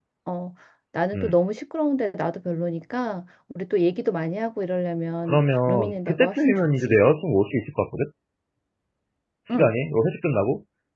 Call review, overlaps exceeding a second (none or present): present